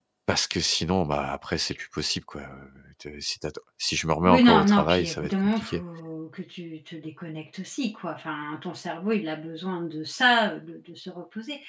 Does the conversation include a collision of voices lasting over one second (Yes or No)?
Yes